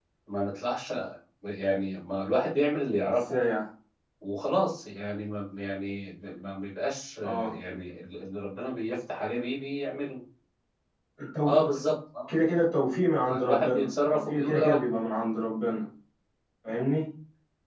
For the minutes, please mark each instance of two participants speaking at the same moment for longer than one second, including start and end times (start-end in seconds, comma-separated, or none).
13.4-14.9